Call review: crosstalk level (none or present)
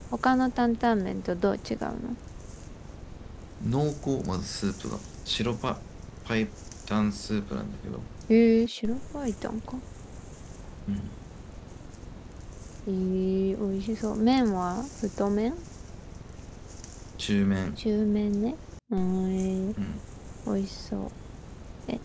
none